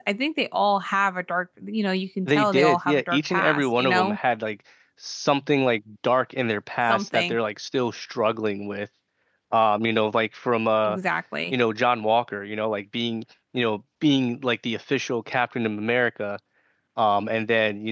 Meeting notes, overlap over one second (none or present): present